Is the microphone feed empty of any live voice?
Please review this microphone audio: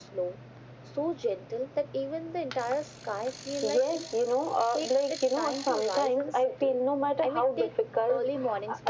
Yes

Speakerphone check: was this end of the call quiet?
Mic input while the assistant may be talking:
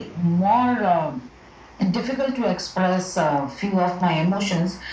Yes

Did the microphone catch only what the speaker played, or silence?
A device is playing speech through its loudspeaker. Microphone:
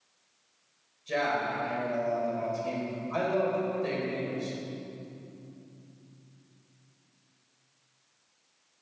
No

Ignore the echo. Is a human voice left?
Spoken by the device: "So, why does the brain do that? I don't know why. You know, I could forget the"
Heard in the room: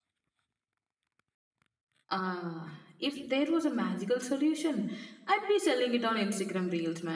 Yes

